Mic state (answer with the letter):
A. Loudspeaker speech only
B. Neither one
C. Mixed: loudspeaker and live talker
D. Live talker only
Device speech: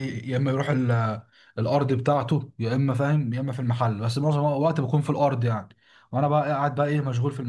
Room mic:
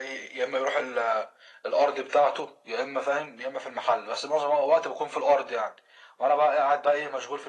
A